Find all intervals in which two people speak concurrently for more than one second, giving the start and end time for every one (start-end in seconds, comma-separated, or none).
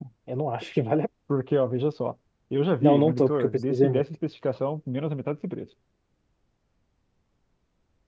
2.8-4.0